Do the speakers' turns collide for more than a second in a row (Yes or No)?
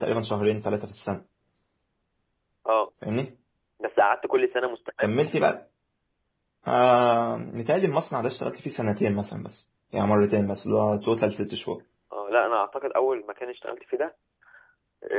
No